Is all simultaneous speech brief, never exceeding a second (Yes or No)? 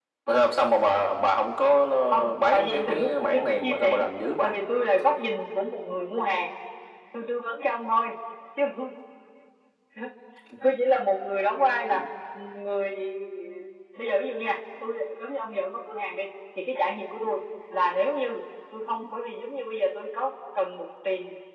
No